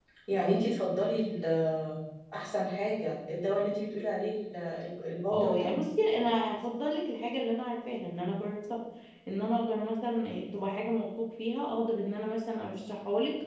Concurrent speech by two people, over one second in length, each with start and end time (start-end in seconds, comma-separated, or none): none